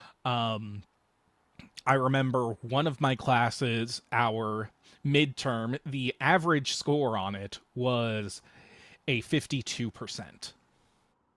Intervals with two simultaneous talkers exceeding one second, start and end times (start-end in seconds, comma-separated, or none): none